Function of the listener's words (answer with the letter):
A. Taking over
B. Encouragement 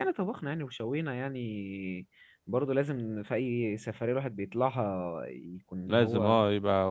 A